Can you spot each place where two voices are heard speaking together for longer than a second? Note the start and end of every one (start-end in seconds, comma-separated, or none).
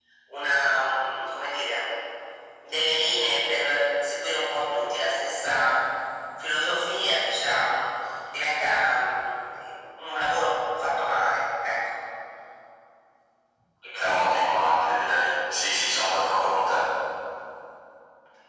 none